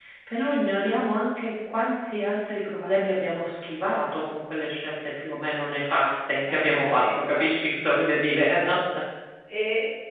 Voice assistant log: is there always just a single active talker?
No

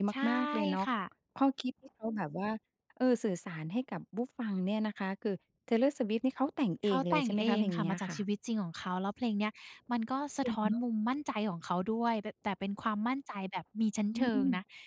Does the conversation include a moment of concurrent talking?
Yes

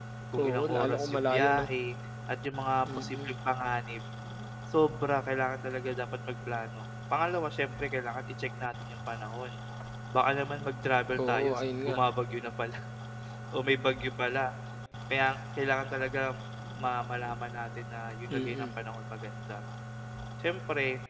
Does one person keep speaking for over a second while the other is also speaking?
Yes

